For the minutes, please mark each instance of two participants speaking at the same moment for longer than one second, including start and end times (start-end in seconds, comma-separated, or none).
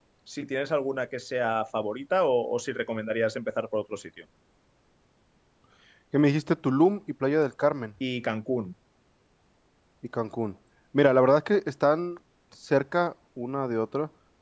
none